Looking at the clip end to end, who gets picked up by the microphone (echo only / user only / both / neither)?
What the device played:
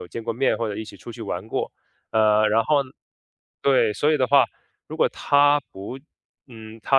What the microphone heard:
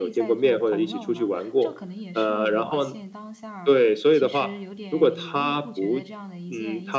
both